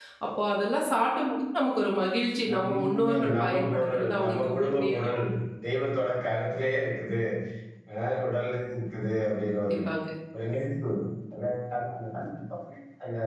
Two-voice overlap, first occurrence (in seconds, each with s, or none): 2.5 s